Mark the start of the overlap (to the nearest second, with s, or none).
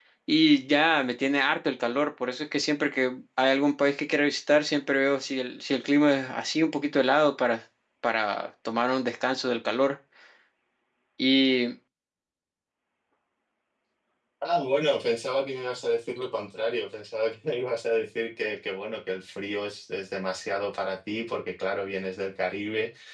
none